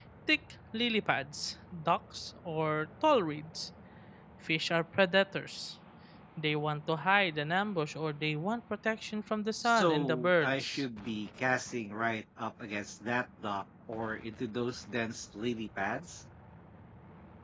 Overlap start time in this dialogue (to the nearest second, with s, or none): 10 s